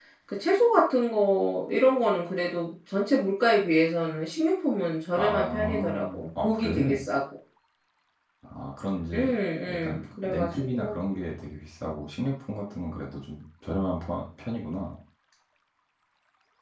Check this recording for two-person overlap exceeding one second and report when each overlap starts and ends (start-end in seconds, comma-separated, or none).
5.2-7.0, 9.7-10.9